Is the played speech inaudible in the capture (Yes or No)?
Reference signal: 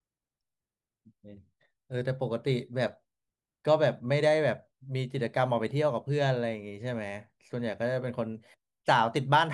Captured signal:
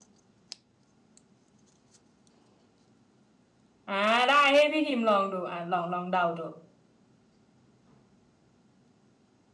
Yes